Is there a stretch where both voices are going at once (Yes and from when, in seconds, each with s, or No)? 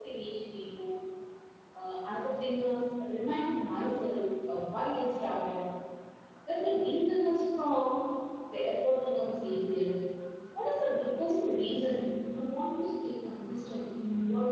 No